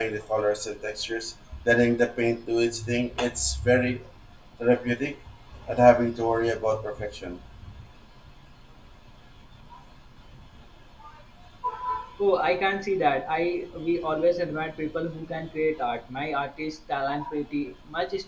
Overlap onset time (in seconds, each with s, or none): none